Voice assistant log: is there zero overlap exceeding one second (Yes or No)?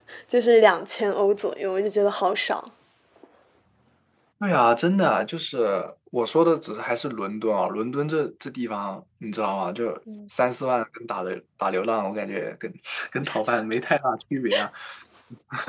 Yes